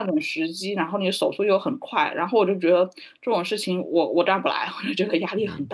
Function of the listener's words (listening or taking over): taking over